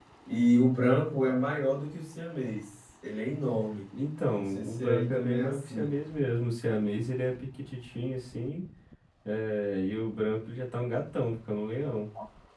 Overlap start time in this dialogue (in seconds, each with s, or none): 4.5 s